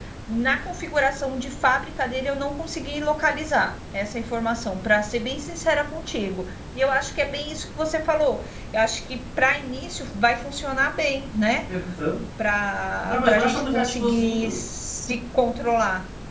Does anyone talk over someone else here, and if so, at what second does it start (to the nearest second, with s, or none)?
13 s